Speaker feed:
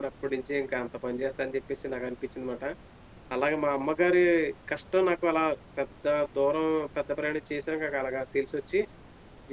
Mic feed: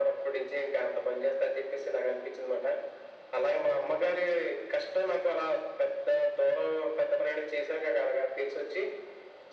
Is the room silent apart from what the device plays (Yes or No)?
Yes